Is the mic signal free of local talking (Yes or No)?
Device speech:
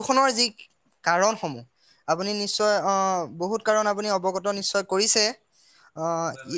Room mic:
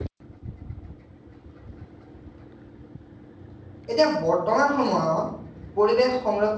No